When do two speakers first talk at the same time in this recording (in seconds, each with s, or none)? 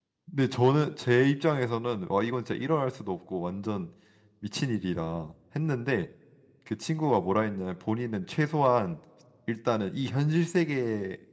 none